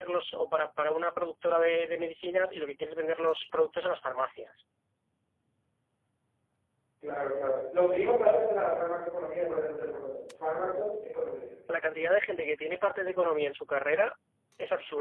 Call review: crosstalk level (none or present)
none